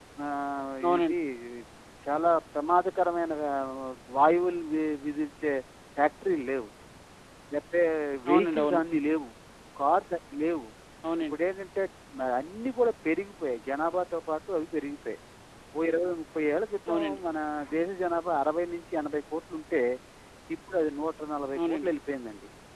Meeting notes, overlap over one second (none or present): none